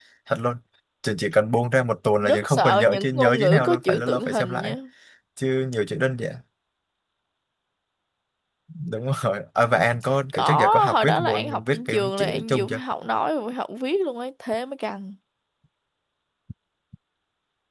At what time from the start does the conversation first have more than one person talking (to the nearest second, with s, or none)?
2 s